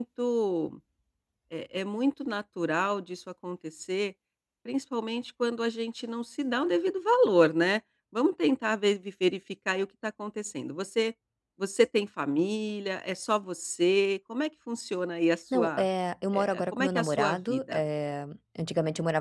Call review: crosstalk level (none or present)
present